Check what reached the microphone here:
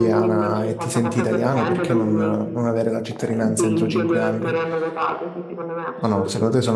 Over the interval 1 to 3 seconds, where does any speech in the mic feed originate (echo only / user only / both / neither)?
both